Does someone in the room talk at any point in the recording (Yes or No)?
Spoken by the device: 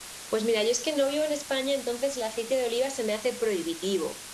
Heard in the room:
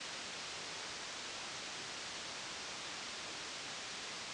No